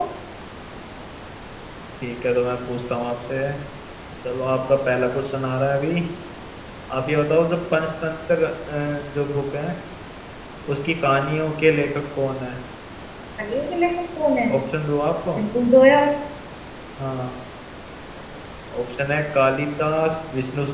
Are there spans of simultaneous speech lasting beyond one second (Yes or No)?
No